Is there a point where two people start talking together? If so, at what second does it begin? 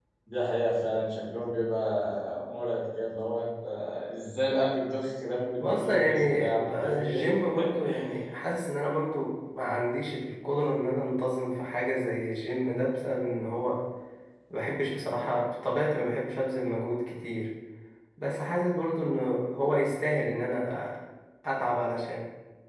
5.6 s

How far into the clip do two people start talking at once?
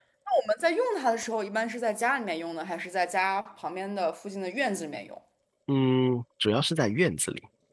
none

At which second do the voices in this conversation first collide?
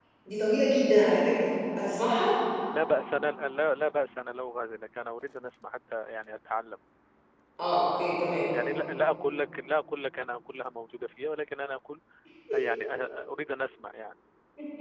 none

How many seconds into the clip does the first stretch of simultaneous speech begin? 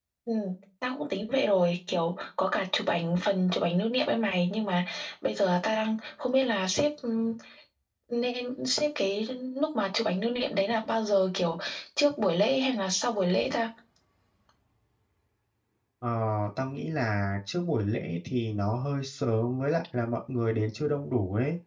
none

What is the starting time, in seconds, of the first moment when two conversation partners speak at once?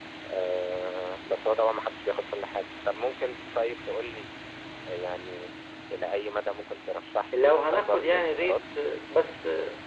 7.3 s

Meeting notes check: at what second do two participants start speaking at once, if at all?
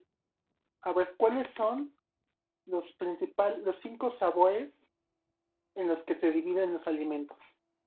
none

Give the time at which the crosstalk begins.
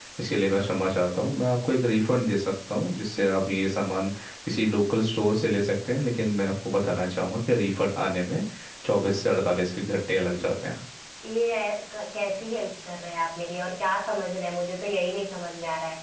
none

